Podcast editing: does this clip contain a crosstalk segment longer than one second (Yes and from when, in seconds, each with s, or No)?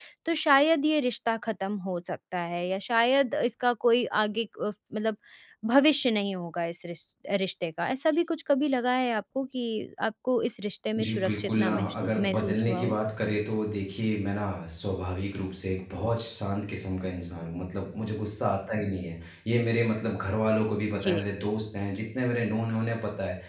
Yes, from 11.0 s